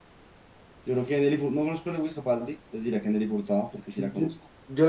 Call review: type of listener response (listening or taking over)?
taking over